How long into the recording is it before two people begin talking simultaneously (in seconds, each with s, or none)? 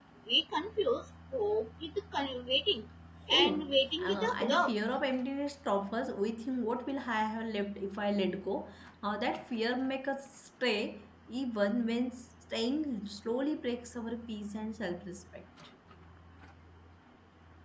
3.4 s